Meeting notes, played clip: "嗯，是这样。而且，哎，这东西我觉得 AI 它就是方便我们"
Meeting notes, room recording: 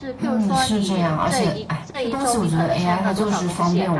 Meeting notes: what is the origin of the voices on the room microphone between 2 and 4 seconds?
both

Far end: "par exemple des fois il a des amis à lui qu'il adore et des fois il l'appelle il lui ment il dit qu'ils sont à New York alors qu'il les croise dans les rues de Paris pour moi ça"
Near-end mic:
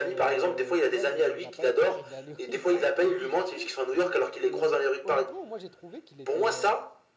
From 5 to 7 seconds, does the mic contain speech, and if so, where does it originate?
both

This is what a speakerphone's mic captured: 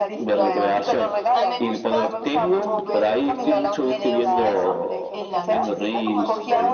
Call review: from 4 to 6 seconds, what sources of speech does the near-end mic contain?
both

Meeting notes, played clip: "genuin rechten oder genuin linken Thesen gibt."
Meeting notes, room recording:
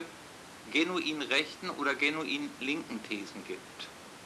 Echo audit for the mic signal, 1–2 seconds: echo only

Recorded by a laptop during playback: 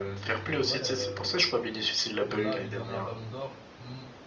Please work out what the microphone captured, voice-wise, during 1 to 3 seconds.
both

